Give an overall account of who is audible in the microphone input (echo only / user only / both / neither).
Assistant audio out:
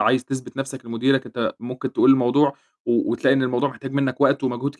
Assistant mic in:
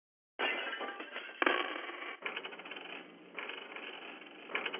neither